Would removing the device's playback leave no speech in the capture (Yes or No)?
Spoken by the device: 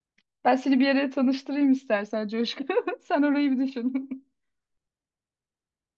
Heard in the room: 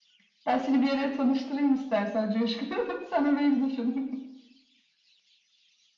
Yes